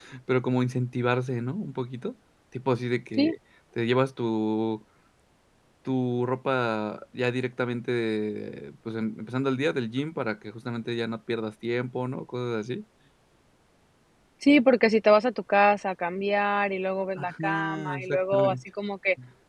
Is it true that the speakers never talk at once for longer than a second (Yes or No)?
No